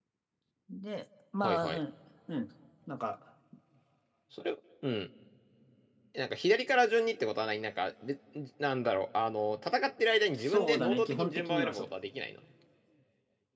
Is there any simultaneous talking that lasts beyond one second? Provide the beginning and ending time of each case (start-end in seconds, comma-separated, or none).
10.4-11.9